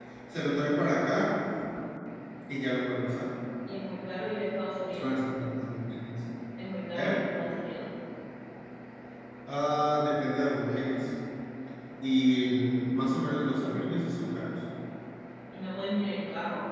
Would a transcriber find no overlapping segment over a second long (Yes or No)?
Yes